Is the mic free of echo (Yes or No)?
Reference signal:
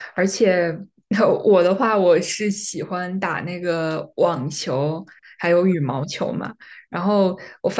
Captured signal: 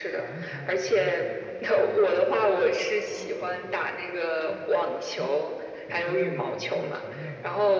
No